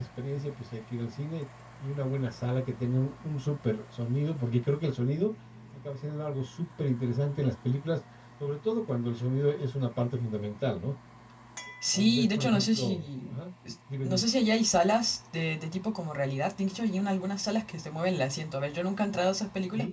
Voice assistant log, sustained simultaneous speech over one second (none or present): present